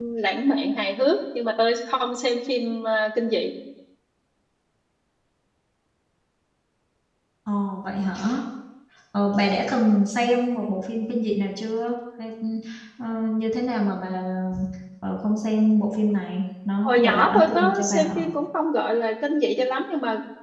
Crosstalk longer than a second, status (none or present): present